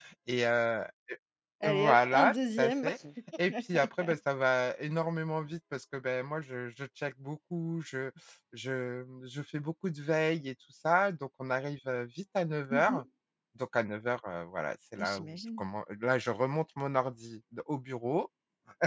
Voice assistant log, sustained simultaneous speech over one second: present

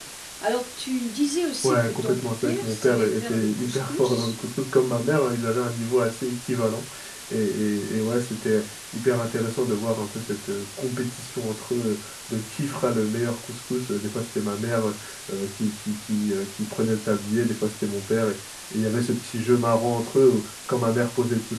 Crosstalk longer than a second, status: present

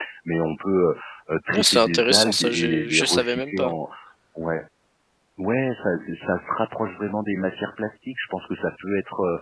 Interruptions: present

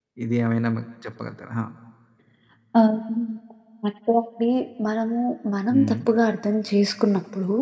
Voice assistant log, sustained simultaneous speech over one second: none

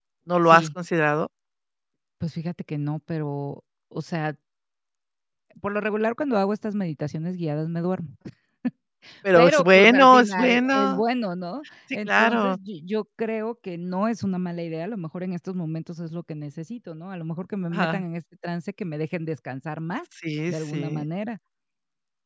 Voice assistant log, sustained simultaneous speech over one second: present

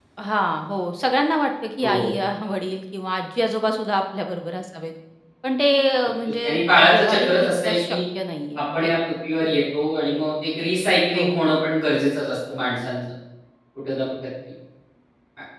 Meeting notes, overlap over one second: present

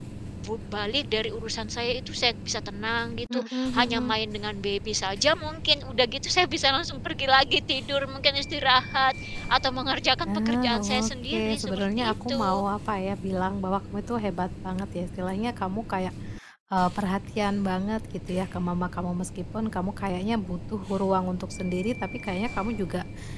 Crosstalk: present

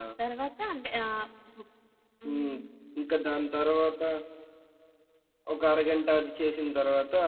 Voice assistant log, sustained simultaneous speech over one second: none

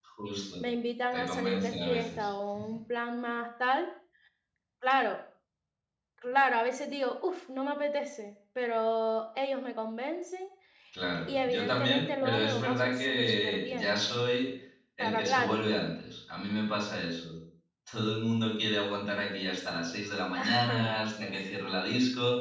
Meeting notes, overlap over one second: present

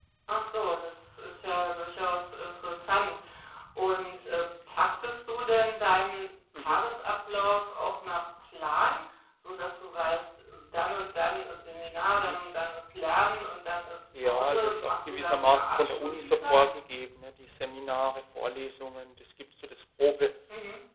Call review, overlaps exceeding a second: present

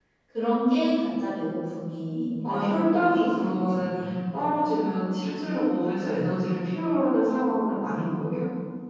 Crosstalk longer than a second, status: present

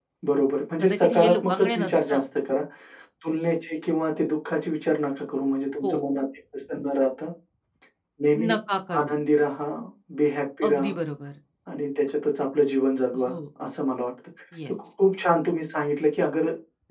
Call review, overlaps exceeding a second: present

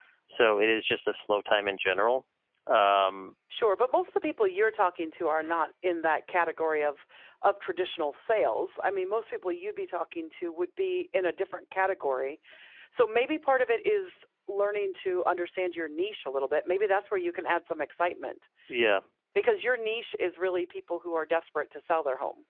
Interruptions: none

